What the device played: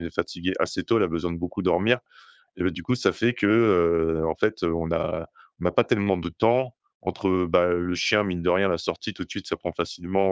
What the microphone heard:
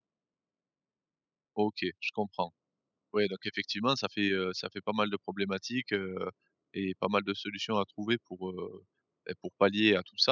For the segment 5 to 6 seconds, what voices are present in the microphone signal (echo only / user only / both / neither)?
user only